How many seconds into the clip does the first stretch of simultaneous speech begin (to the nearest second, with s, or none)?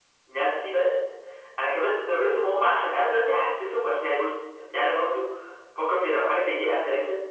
none